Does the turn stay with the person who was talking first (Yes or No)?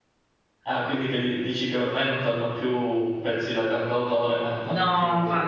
No